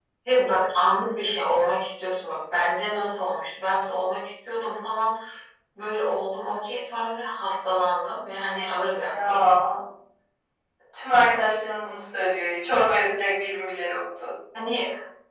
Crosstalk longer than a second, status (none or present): none